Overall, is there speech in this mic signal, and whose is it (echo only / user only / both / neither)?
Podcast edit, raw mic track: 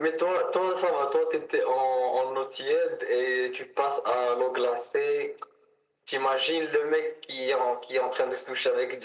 echo only